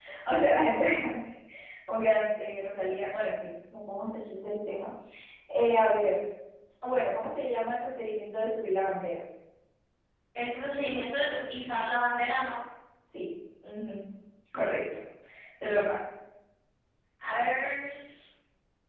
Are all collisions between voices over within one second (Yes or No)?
Yes